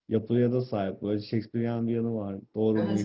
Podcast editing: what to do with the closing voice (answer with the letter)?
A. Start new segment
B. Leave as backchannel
A